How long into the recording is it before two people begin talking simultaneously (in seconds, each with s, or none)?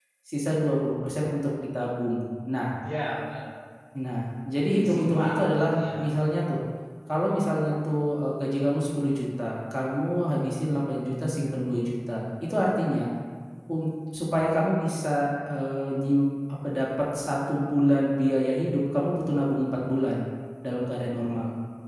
4.7 s